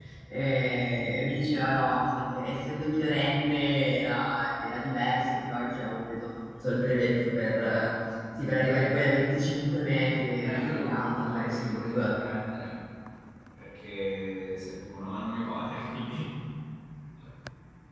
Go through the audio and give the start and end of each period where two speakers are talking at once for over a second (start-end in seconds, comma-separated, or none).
10.4-12.1